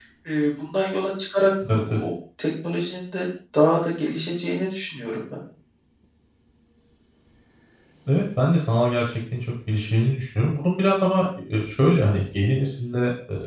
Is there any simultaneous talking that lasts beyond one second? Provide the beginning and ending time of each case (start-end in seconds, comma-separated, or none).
none